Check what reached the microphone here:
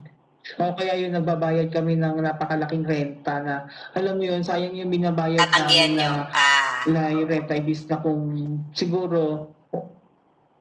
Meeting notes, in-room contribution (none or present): present